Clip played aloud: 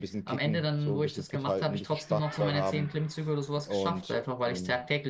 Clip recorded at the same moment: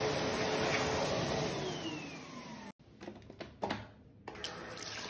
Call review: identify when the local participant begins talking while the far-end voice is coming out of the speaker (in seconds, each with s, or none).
none